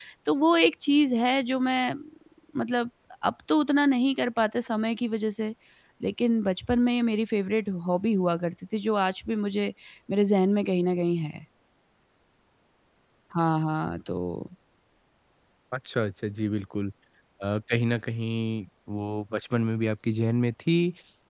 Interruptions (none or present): none